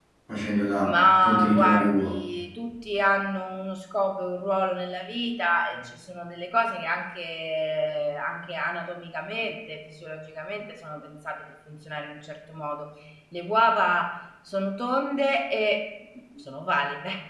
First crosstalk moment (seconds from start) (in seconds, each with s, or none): 0.8 s